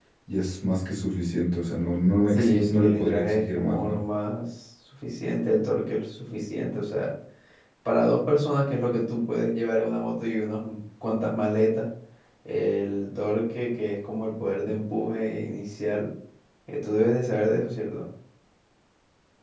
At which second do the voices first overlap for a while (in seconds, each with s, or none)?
2.3 s